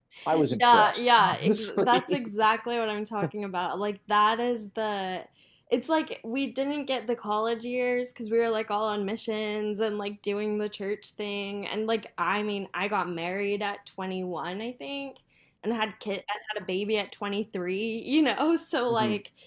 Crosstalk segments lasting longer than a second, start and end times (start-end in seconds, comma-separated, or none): 0.5-2.2